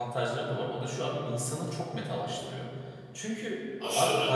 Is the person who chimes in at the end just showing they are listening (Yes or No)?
Yes